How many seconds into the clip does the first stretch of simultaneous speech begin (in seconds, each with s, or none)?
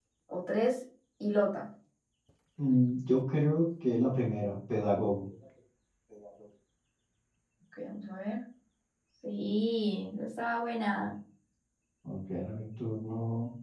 none